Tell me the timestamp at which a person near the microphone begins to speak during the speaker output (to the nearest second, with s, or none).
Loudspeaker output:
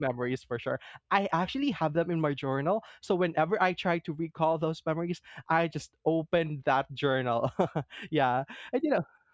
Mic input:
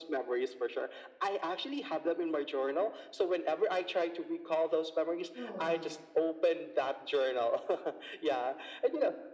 5 s